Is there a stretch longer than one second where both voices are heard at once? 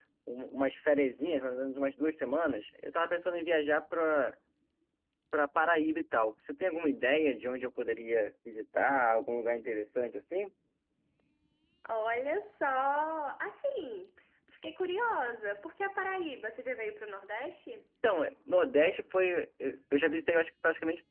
No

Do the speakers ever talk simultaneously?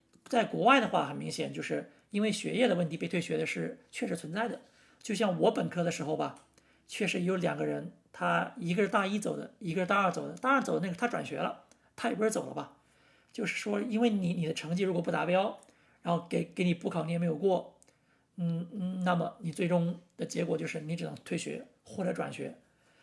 No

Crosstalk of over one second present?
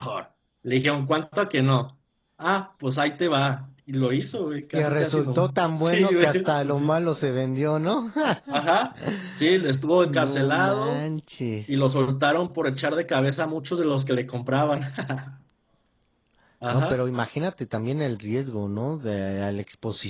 Yes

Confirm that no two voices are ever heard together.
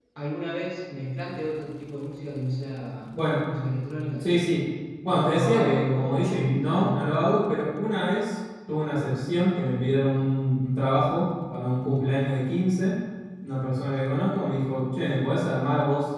No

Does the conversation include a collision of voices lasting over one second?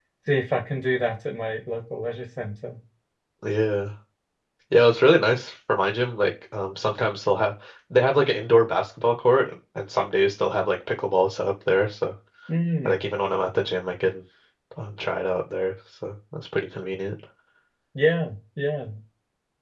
No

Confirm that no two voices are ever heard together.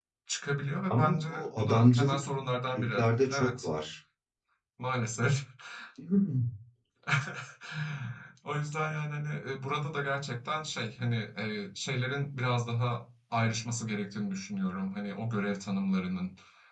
No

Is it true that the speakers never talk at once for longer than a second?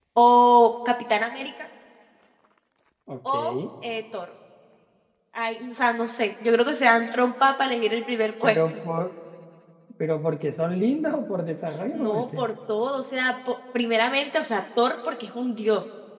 Yes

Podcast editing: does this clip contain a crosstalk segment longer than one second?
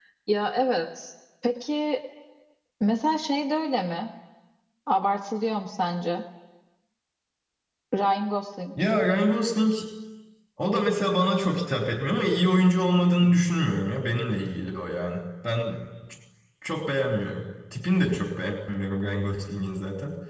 No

